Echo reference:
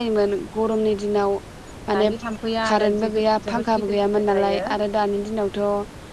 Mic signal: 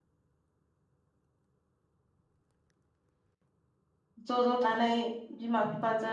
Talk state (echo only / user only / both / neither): user only